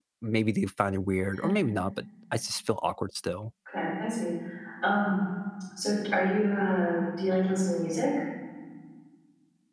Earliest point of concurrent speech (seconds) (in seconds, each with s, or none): none